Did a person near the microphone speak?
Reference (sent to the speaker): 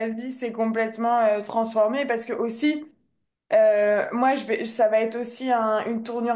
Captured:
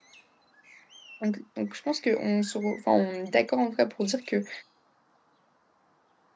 Yes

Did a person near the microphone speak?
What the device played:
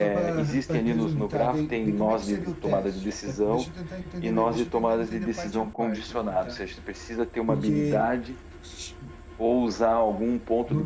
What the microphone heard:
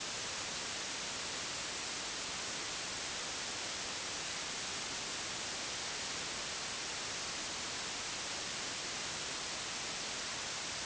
No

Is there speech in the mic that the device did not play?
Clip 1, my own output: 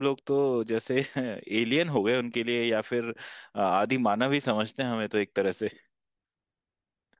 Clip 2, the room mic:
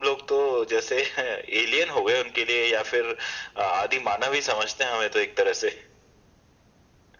No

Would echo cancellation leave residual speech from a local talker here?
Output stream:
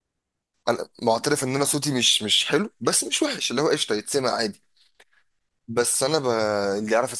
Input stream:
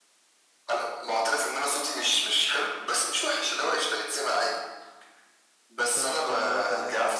Yes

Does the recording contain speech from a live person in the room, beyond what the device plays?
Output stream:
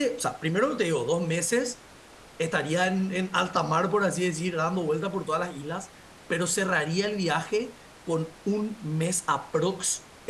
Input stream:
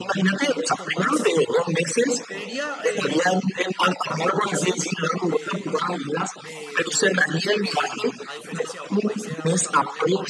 Yes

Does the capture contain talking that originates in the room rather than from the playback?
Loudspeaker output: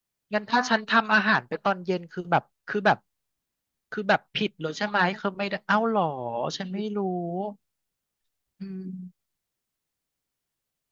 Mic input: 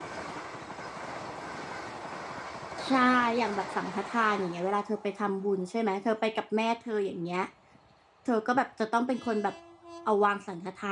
Yes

